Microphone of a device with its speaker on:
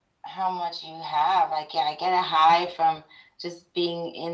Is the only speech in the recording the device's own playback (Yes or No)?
Yes